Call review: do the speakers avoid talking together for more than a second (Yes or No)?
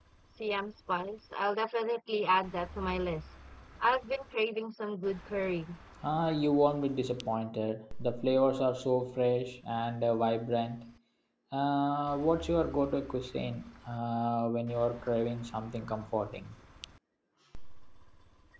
Yes